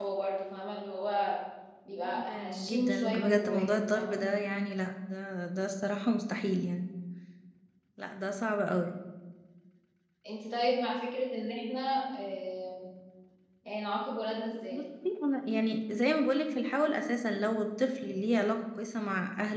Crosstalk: present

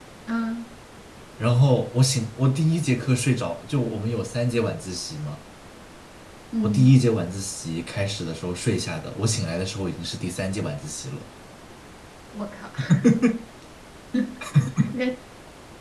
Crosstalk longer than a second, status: none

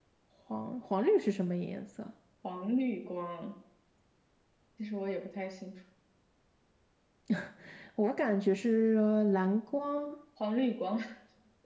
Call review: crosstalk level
none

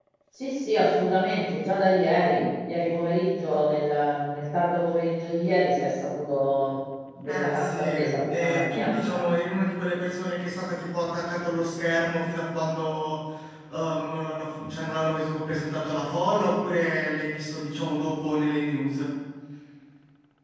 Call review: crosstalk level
present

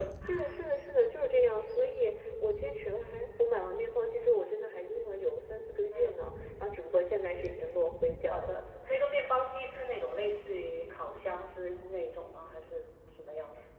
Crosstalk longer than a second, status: none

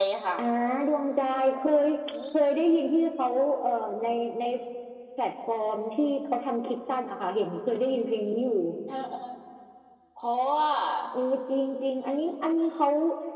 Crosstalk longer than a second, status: none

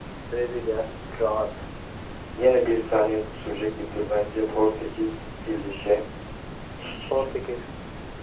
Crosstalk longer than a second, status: none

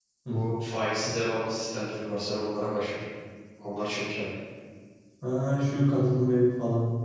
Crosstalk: none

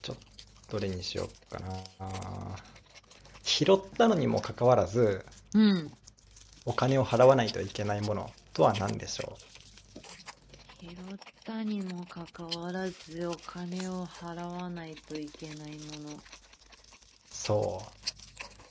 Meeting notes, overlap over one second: none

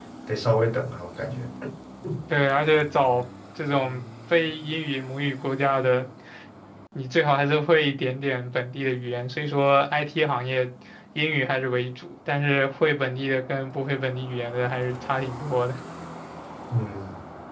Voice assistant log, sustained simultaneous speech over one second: none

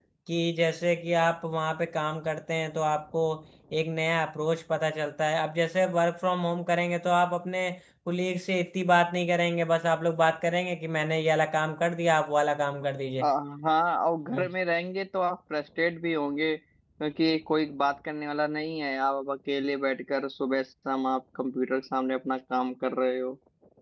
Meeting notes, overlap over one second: none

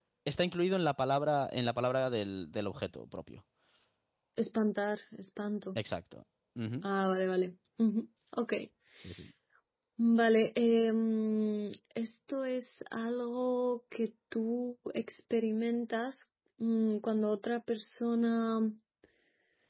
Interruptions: none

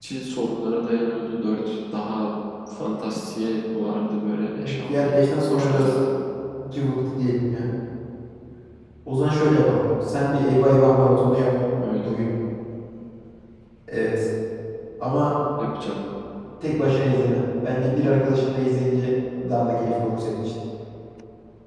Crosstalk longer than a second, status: present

